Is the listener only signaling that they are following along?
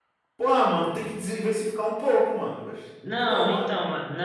No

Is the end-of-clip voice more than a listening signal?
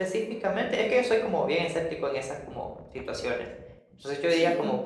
No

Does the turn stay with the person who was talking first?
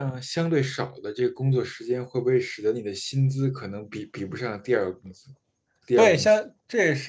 No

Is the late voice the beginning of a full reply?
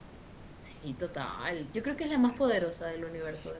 Yes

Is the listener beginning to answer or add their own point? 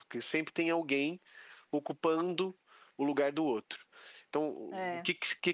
No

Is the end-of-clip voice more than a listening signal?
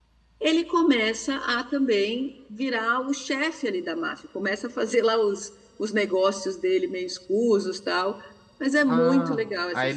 Yes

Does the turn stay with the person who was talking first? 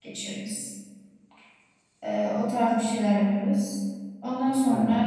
Yes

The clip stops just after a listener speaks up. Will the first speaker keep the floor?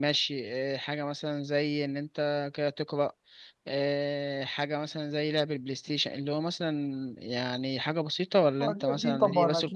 No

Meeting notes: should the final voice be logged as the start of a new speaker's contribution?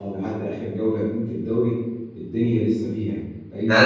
Yes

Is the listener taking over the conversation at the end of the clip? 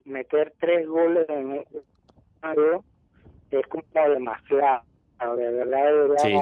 Yes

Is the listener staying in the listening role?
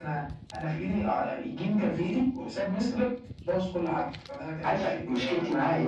No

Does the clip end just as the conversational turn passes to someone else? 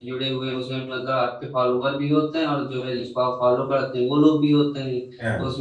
No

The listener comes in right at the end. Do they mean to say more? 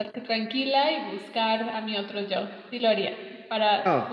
No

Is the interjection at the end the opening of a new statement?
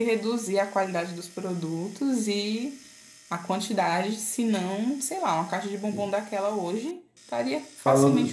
Yes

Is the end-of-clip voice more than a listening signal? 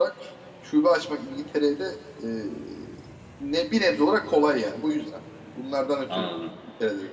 Yes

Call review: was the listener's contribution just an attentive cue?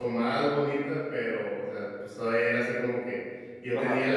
Yes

